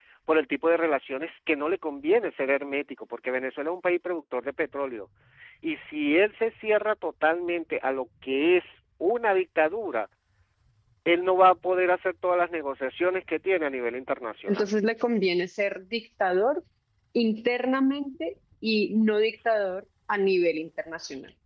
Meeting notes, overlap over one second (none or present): none